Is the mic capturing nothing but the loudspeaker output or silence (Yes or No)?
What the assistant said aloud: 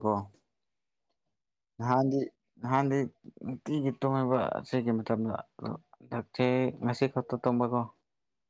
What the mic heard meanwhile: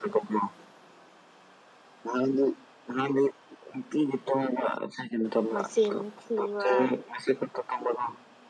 No